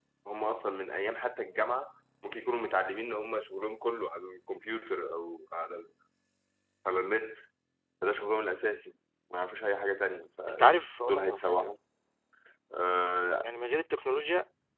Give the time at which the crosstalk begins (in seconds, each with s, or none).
10.5 s